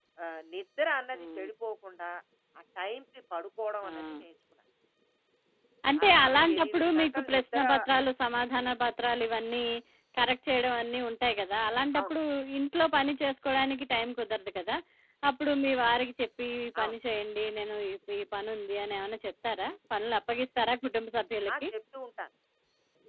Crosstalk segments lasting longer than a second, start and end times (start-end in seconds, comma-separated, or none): 6.0-7.6